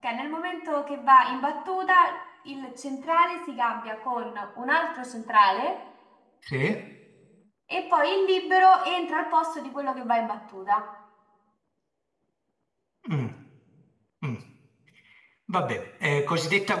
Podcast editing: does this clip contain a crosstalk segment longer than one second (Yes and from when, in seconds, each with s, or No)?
No